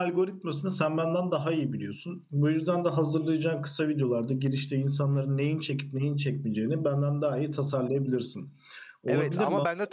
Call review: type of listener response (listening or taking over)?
taking over